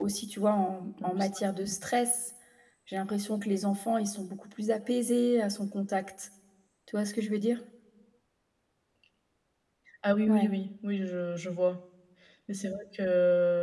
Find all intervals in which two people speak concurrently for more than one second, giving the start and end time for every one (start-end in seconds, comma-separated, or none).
none